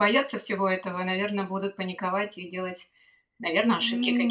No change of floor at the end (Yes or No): No